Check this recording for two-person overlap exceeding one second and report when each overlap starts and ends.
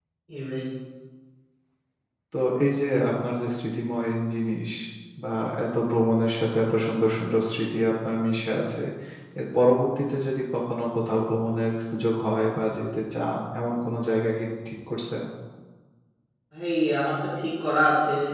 none

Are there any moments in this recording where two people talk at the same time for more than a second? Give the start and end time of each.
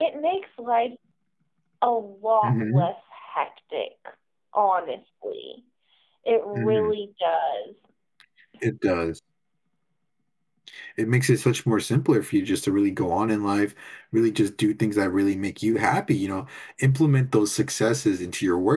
none

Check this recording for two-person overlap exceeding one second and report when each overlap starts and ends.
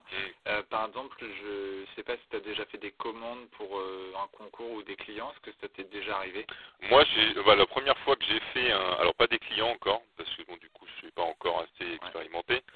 none

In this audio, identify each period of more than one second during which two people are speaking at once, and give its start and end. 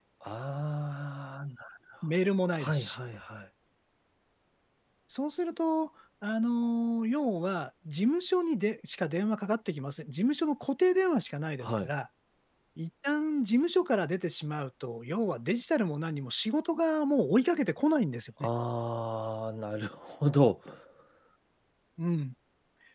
none

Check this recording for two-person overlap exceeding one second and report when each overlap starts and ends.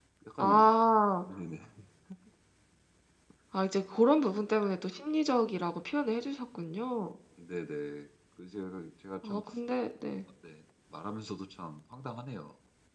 none

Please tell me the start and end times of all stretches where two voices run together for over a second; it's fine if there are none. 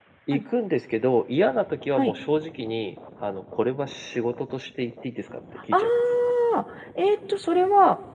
none

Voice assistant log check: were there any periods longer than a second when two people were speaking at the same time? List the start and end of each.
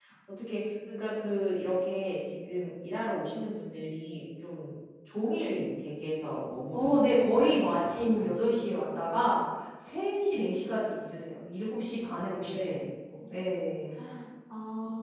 6.7-9.0

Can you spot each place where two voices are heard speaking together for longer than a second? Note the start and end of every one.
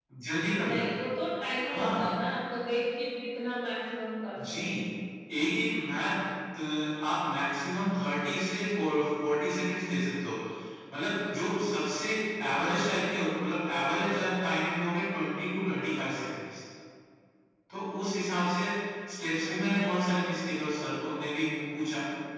none

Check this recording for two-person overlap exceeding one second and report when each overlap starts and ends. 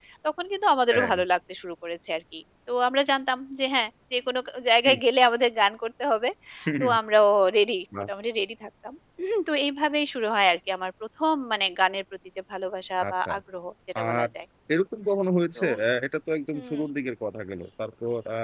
none

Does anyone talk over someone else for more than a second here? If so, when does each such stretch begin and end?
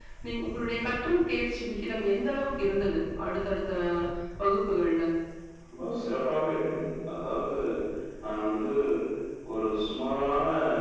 none

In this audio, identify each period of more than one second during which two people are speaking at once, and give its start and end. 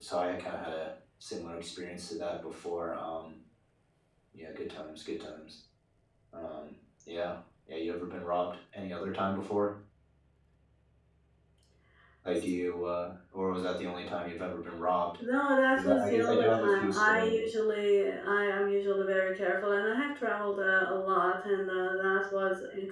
15.8-17.4

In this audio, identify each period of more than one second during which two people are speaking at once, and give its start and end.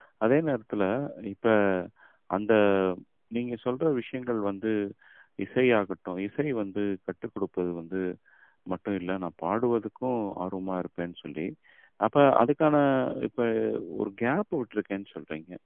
none

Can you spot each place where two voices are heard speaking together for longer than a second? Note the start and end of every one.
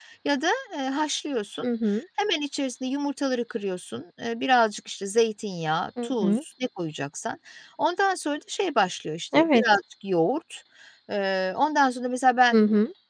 none

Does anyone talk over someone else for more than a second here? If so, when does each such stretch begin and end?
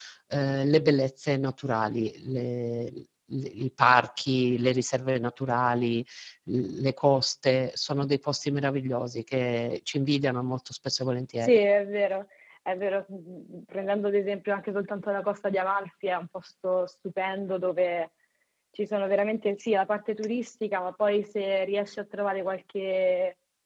none

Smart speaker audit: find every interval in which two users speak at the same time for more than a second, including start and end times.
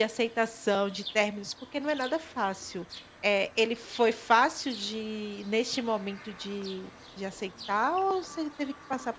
none

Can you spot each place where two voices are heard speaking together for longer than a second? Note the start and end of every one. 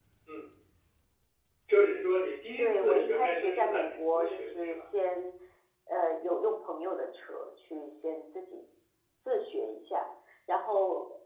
2.6-4.8

